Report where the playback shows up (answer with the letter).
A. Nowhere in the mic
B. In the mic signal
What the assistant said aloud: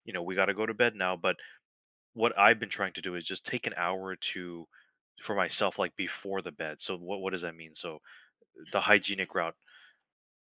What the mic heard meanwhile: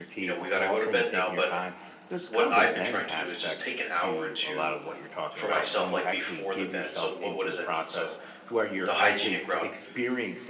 B